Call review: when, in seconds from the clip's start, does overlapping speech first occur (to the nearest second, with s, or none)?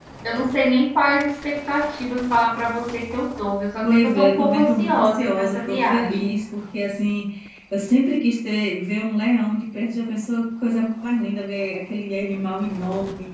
4 s